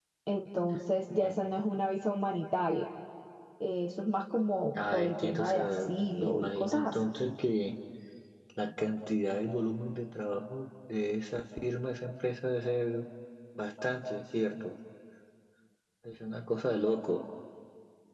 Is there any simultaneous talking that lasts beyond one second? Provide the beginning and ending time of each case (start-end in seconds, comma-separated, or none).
4.9-7.0